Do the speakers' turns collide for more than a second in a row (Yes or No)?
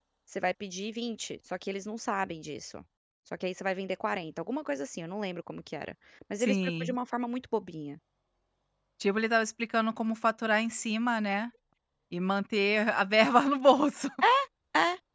No